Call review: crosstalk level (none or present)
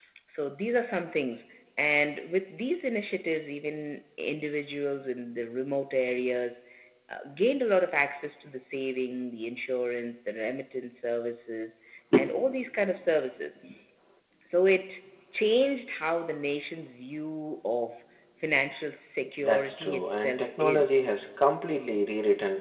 present